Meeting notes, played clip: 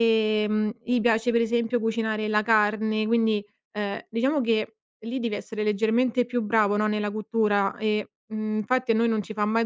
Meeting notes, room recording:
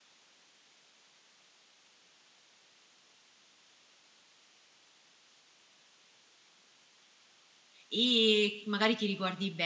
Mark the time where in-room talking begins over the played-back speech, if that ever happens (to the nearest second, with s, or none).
8 s